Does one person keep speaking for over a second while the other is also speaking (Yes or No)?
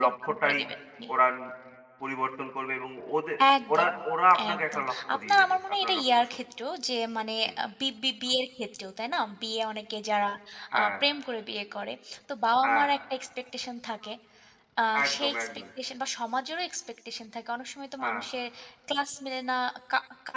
Yes